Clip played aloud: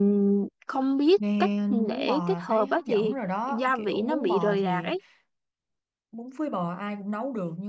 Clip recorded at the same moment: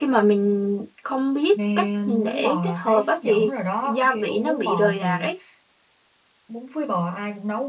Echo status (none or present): present